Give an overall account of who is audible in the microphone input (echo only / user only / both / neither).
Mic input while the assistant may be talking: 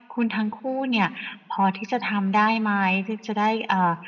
echo only